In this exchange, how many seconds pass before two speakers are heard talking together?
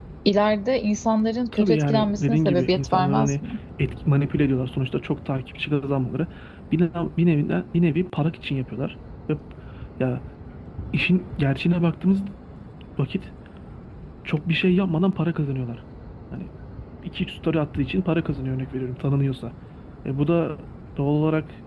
1.5 s

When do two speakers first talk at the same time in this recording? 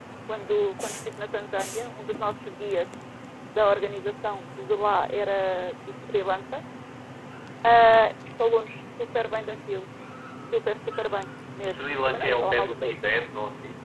11.7 s

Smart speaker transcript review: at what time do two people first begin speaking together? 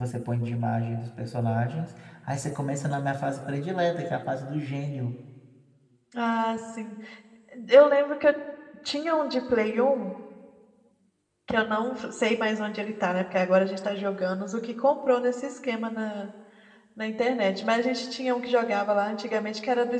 none

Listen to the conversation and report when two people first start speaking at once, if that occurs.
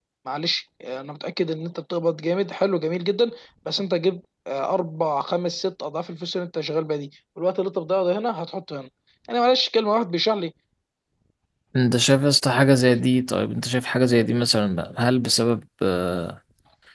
none

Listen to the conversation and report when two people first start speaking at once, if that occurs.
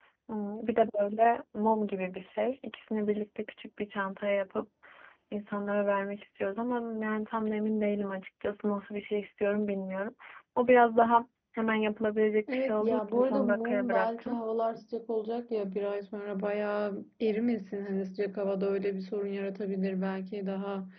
12.5 s

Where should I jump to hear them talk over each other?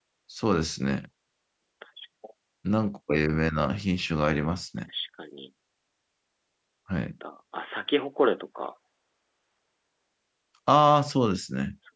none

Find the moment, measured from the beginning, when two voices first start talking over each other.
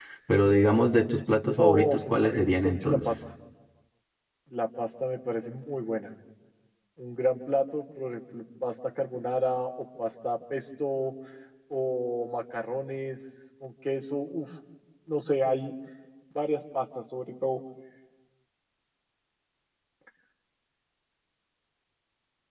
1.6 s

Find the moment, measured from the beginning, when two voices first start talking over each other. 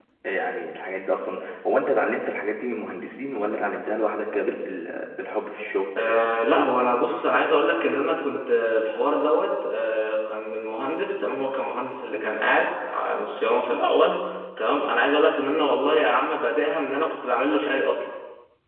none

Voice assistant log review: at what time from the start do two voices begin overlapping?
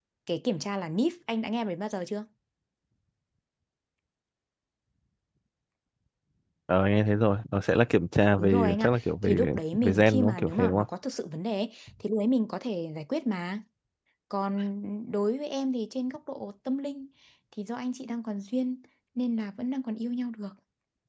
8.4 s

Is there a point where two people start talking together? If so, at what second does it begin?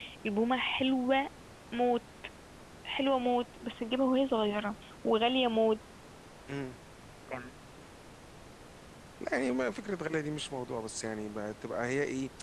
none

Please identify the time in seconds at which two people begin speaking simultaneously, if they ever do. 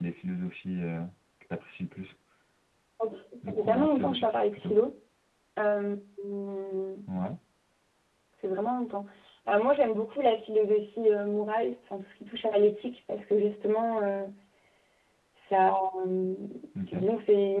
3.5 s

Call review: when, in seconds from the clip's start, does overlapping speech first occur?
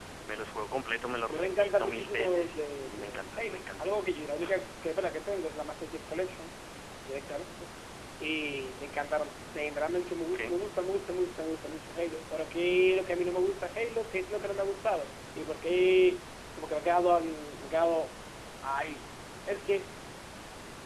1.3 s

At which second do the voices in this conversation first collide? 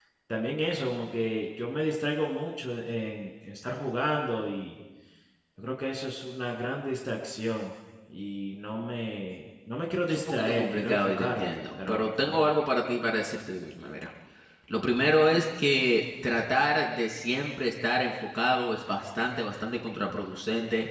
10.1 s

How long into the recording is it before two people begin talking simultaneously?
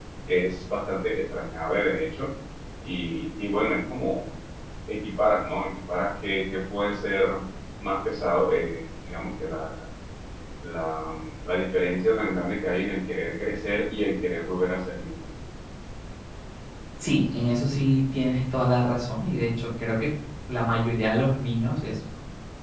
none

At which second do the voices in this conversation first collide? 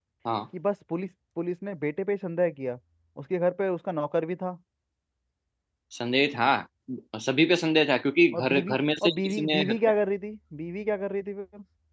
8.3 s

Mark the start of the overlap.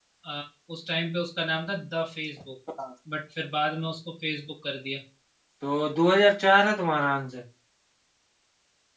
none

